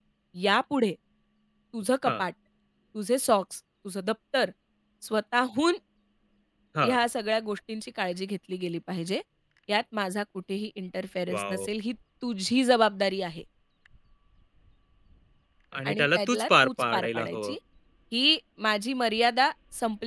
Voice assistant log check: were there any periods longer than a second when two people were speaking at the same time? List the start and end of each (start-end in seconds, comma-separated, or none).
15.9-17.6